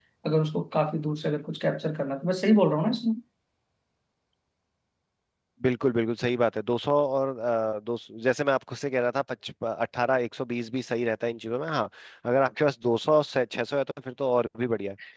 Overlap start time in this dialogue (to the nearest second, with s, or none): none